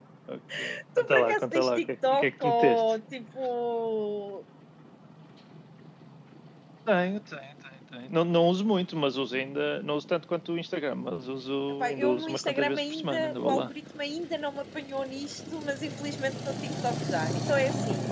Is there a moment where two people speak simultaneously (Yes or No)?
Yes